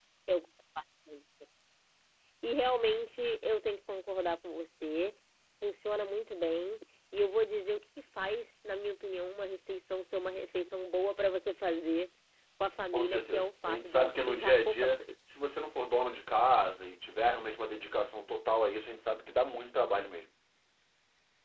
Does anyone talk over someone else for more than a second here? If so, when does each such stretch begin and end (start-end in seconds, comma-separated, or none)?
12.9-15.1